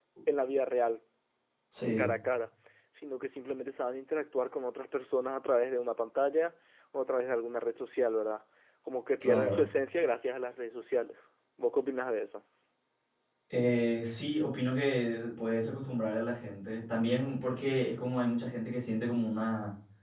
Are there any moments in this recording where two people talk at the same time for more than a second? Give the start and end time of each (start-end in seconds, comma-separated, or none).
none